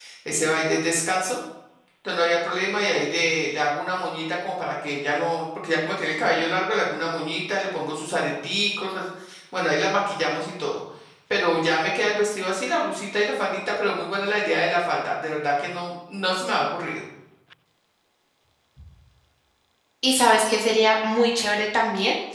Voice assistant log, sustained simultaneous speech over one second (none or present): none